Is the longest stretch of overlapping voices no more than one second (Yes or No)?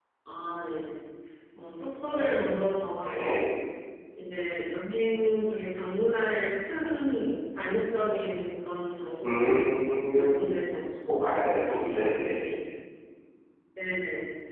Yes